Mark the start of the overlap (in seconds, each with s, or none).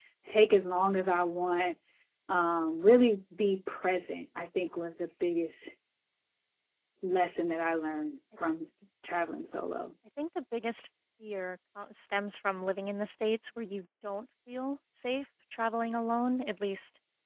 none